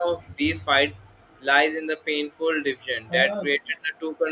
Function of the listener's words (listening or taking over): listening